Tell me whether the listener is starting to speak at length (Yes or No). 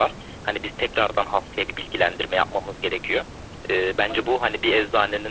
No